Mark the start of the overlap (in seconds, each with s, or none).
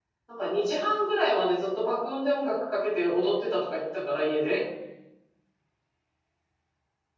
none